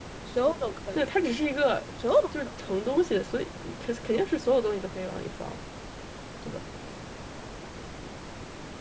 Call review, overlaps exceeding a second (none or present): none